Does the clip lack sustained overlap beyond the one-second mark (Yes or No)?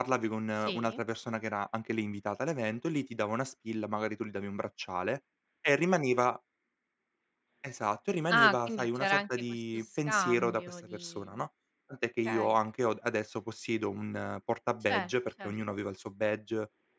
No